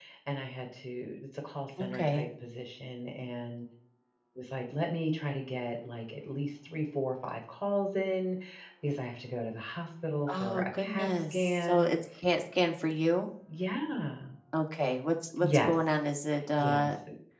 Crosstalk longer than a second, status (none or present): present